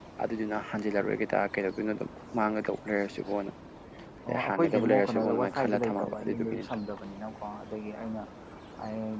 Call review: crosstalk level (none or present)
present